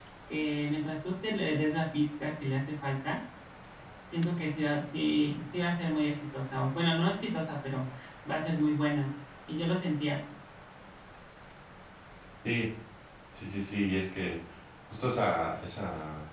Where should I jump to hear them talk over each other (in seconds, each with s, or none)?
none